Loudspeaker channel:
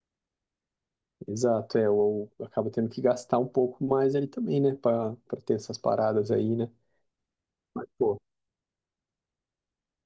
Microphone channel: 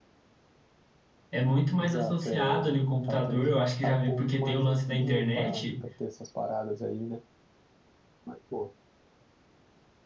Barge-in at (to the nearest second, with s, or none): 1 s